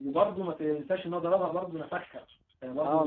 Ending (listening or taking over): taking over